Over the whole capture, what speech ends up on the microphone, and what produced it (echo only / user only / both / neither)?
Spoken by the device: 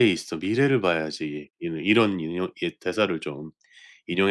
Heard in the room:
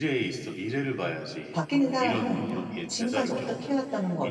both